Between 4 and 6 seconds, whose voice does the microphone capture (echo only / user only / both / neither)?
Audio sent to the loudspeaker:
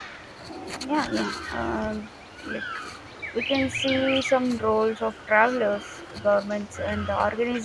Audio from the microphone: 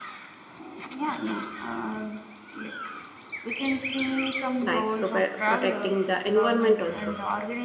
both